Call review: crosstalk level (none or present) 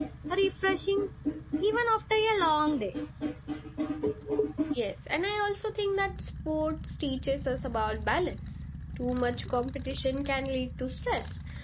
none